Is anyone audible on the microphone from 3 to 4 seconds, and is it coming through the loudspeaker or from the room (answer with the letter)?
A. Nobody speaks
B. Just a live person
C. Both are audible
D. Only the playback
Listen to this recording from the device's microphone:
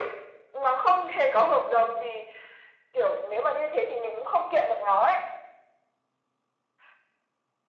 D